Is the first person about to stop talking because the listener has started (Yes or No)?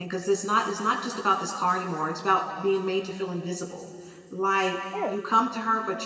No